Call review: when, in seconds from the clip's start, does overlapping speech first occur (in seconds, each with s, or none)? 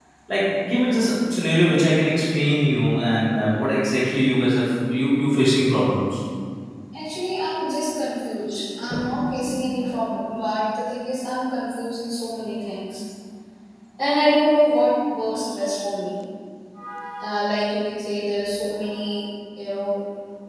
none